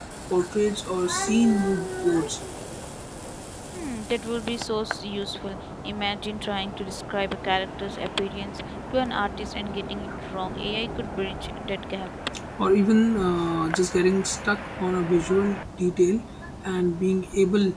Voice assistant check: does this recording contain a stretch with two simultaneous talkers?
No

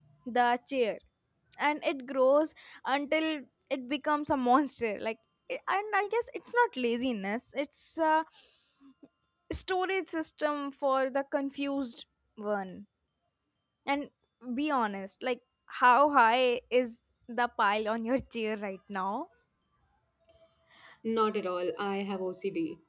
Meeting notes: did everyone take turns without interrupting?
Yes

